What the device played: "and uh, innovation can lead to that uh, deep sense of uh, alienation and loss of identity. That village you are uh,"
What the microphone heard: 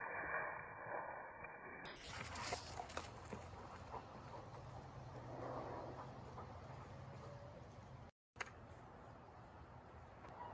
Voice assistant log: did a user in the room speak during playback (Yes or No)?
No